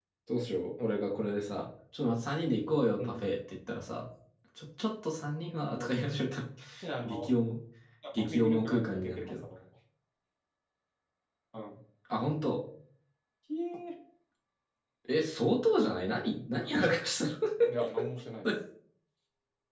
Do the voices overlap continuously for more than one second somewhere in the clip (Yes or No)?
Yes